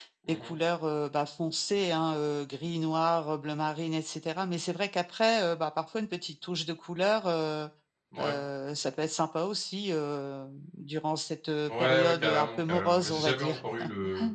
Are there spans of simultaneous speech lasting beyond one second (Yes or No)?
Yes